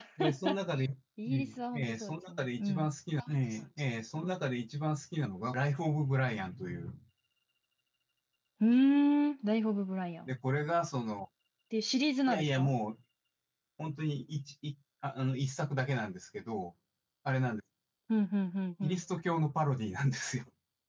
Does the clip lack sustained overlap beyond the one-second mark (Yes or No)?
No